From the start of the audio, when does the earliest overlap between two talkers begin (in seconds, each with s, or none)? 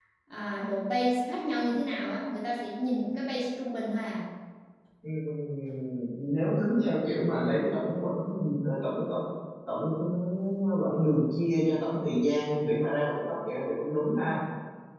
none